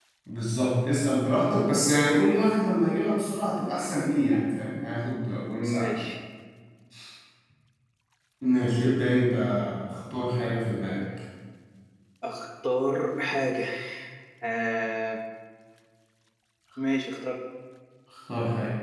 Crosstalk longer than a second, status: none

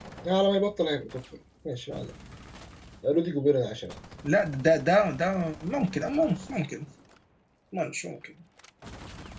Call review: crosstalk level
none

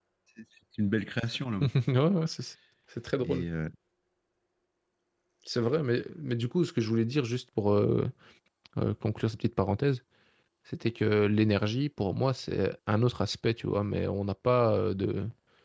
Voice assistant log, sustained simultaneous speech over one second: none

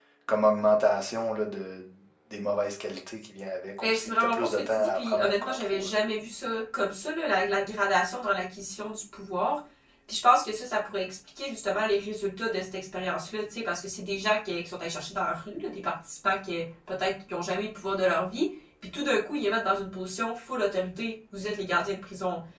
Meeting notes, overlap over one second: present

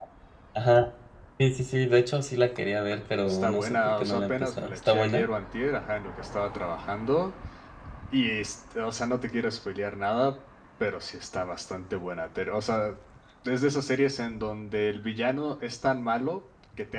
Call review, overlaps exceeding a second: present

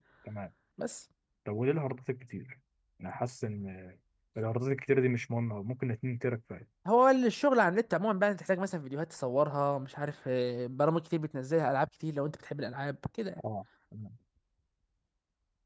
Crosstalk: none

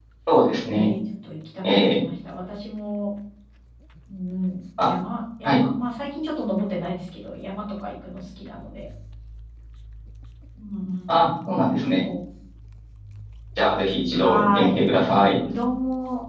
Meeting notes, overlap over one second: present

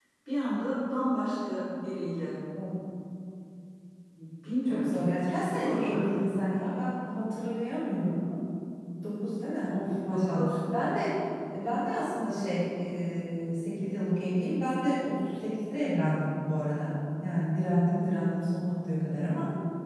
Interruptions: present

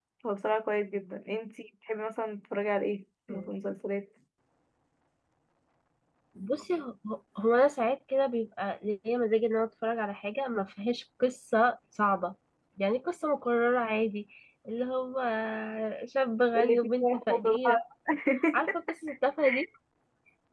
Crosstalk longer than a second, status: present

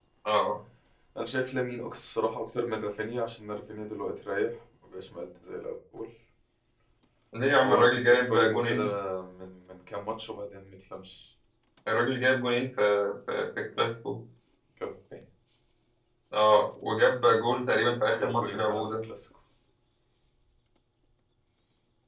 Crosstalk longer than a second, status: present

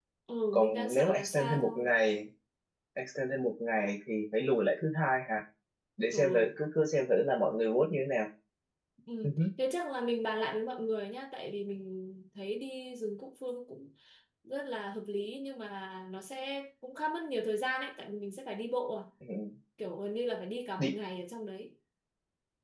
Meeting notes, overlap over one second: present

